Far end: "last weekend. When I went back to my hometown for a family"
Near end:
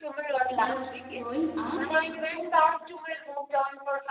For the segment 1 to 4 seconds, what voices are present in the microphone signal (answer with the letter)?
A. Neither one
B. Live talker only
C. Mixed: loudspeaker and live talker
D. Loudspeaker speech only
C